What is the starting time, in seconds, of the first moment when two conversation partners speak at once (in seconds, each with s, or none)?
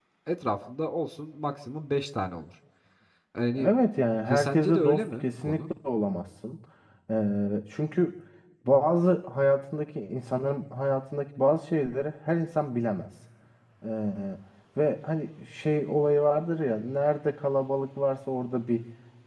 4.3 s